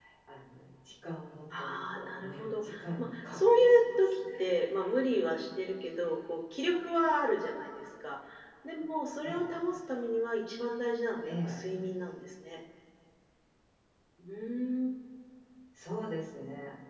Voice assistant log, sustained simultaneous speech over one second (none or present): present